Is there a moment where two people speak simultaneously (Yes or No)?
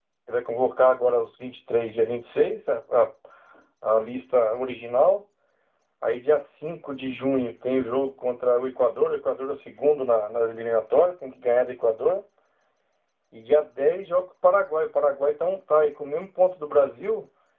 No